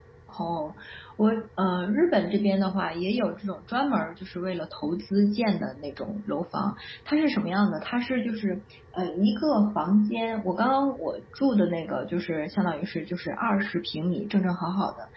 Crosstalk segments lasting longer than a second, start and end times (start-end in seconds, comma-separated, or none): none